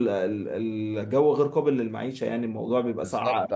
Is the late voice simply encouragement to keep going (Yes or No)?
No